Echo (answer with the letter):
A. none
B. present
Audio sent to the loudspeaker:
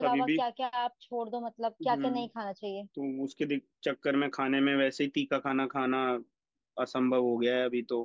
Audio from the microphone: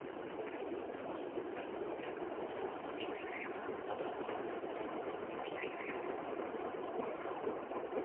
A